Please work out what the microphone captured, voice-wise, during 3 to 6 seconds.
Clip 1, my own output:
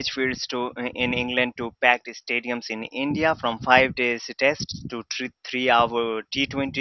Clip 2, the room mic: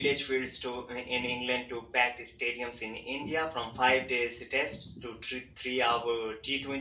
echo only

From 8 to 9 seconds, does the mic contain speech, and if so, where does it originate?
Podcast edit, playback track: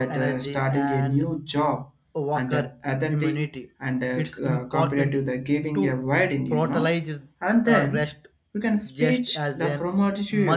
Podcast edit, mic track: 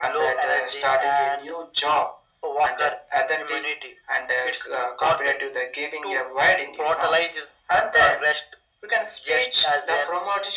echo only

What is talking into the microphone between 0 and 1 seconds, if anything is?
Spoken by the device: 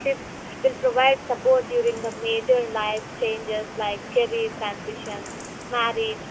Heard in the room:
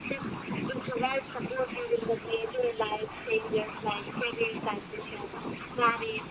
echo only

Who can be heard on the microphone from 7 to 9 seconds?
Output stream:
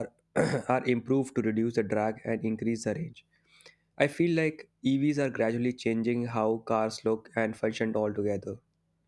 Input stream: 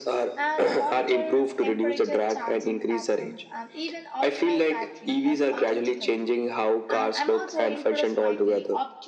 both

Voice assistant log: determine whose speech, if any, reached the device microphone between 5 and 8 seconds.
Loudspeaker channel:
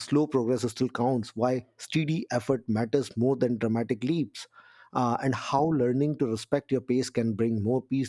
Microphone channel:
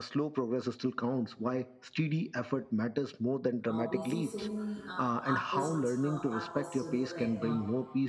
both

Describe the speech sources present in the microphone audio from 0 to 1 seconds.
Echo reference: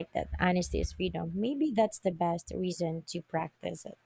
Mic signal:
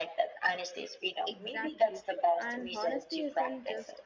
echo only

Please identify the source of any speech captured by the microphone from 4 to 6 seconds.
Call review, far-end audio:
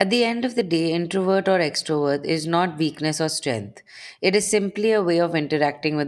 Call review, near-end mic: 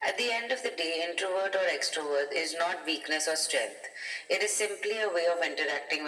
echo only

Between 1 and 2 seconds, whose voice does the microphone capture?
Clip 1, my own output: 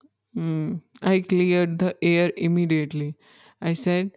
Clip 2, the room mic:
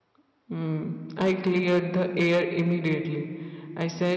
echo only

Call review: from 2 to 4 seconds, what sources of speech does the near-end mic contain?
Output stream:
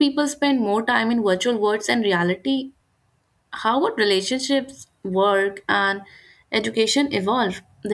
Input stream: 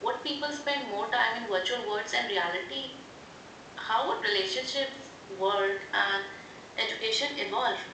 echo only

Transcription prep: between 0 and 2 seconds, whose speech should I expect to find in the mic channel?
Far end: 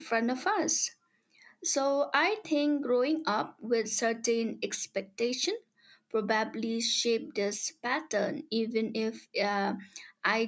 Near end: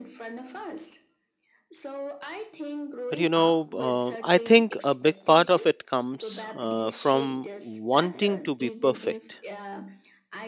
echo only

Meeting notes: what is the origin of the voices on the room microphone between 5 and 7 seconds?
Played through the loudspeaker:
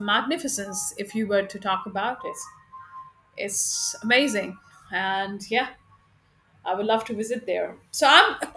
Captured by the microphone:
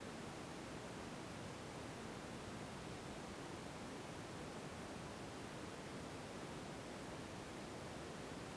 neither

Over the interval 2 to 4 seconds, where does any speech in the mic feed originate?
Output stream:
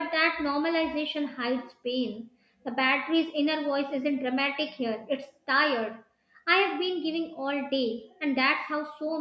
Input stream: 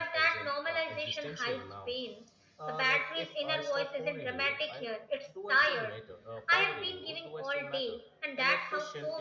both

